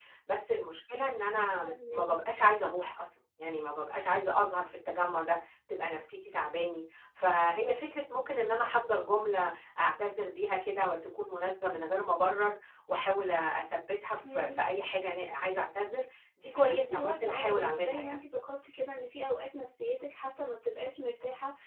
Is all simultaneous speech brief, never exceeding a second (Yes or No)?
No